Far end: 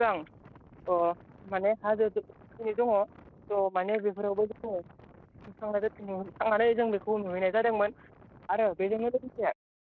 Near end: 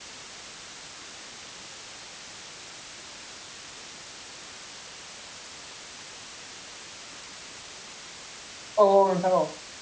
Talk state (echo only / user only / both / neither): user only